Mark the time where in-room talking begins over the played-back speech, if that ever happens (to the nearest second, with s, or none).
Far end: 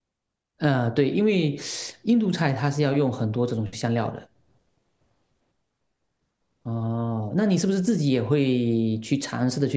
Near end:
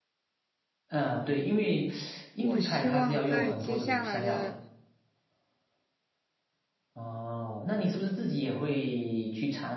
2 s